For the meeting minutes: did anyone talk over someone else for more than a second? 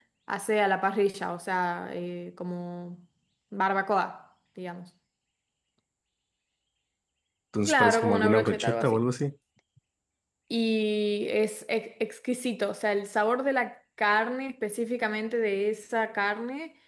Yes, from 7.8 s

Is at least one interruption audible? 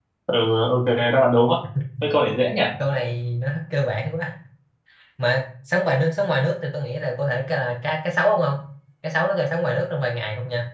No

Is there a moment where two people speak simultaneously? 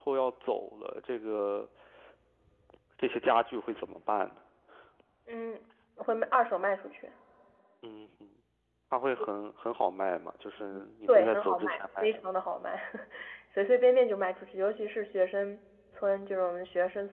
Yes, from 10.6 s

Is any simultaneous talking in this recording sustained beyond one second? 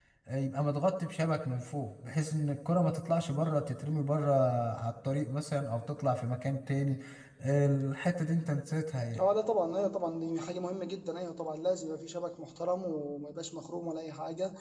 No

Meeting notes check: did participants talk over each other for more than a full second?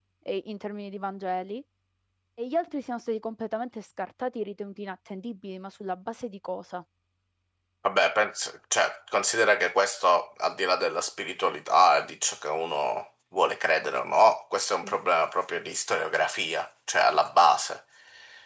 No

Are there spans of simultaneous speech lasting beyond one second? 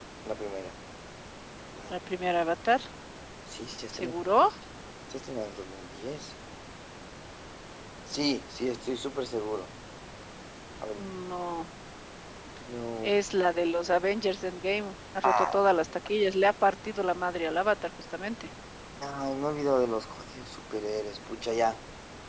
No

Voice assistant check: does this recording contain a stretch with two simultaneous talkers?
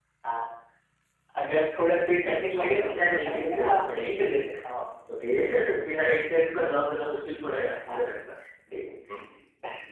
Yes, from 2.6 s

